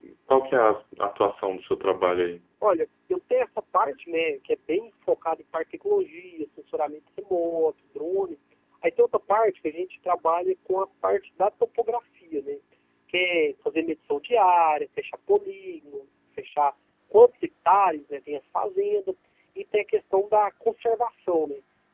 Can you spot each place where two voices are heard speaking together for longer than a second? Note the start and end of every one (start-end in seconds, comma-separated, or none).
none